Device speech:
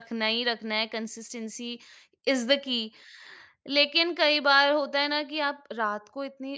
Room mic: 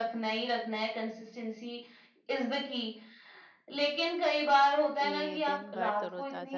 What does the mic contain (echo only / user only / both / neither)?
both